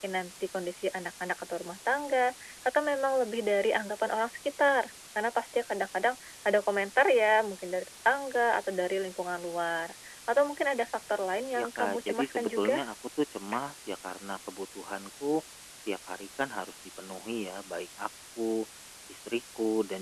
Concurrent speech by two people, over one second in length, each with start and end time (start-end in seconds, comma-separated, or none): 11.6-12.8